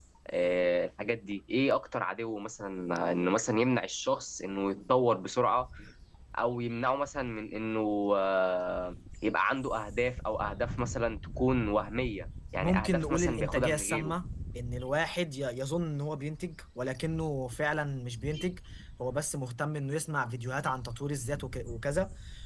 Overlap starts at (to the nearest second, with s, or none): 13 s